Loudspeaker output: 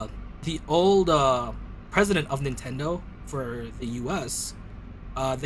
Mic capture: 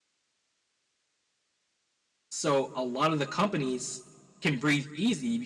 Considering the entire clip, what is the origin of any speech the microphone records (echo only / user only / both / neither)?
user only